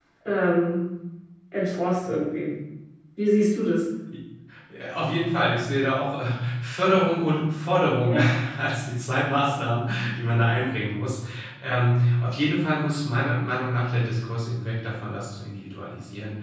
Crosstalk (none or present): none